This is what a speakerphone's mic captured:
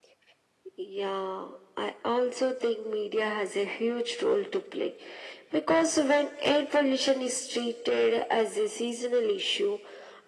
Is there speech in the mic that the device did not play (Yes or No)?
No